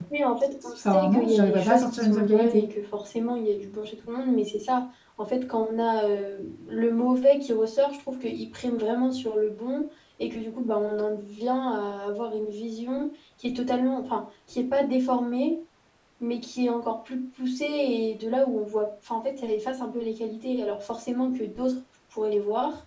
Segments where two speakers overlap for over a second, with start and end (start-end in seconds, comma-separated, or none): 0.8-2.6